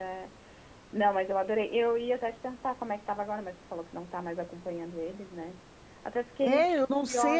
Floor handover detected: Yes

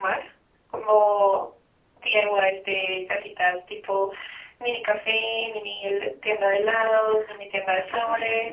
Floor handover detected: Yes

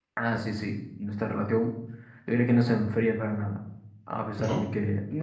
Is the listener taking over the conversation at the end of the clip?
No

